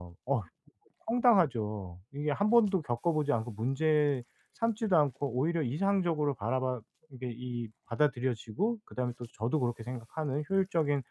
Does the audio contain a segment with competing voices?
No

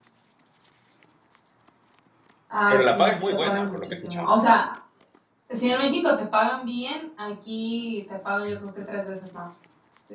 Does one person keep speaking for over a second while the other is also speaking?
Yes, from 2.7 s

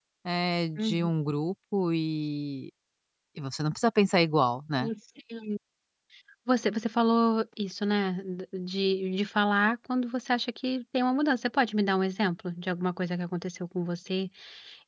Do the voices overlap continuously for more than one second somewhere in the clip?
No

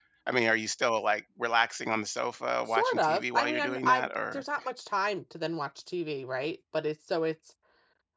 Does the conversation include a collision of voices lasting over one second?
Yes, from 2.7 s

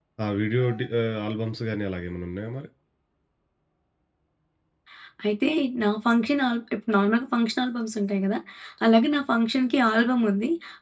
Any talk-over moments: No

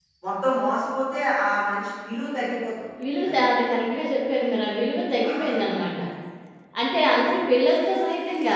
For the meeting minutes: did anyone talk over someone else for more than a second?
No

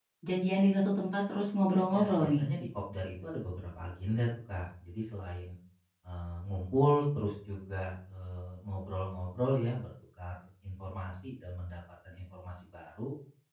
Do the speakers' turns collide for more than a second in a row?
No

